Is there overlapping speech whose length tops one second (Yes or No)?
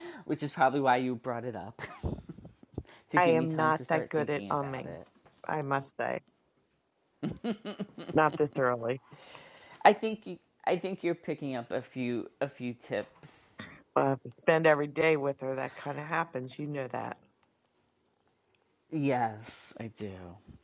Yes